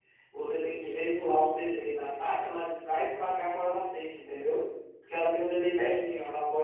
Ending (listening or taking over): listening